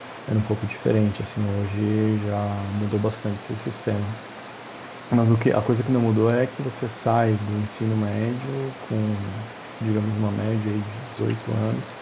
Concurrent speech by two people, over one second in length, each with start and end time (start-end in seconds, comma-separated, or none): none